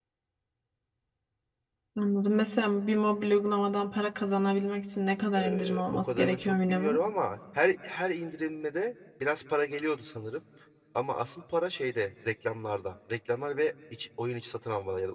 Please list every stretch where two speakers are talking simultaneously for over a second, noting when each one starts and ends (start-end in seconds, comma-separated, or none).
5.4-7.0